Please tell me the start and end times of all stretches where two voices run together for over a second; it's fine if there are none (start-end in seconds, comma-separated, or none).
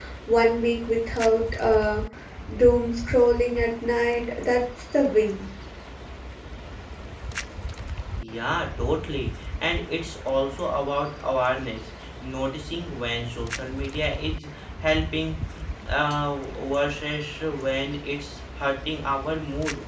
none